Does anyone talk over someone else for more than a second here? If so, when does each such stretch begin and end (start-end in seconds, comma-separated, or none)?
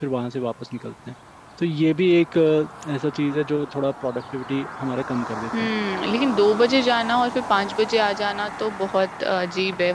none